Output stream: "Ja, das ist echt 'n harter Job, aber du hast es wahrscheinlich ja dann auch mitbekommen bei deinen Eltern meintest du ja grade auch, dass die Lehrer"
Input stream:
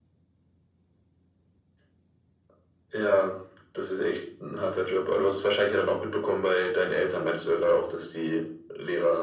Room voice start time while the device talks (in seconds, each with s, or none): none